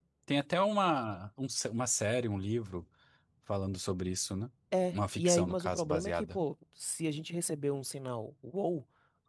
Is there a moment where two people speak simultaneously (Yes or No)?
Yes